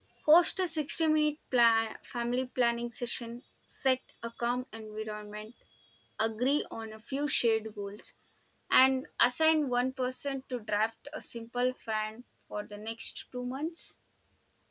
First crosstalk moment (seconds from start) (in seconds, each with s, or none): none